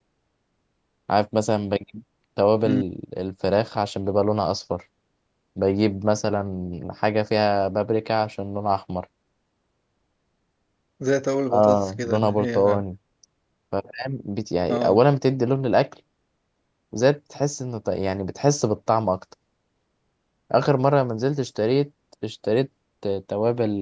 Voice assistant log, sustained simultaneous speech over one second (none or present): present